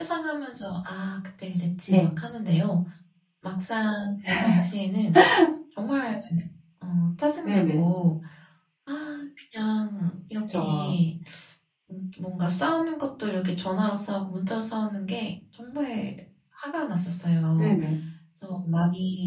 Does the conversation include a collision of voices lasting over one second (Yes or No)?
No